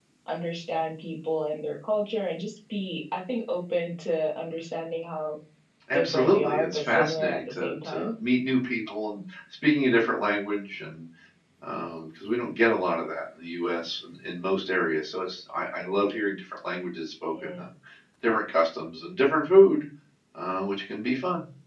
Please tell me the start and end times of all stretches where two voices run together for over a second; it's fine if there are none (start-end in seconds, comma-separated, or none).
5.9-8.1